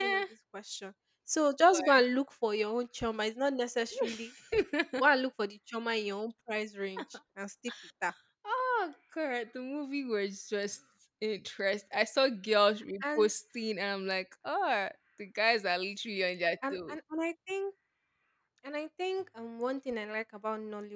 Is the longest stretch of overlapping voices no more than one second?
Yes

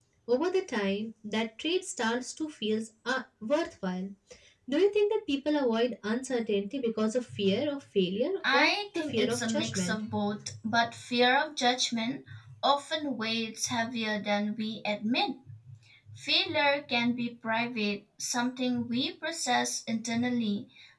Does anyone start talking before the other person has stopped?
Yes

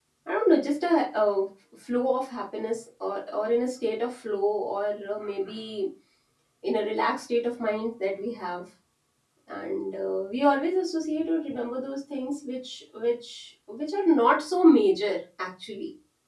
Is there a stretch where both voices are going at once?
No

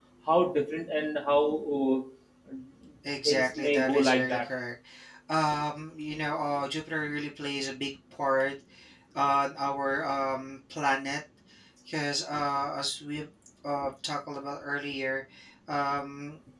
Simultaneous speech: Yes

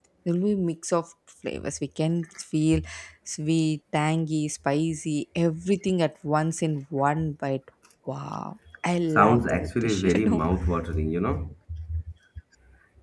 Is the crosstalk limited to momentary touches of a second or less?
No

